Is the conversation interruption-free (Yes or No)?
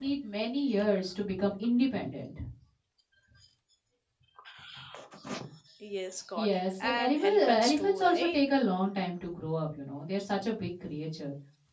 No